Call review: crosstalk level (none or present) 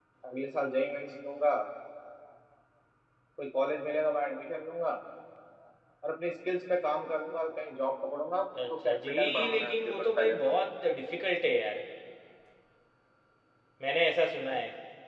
present